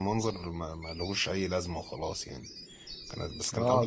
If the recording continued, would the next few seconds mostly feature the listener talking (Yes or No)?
Yes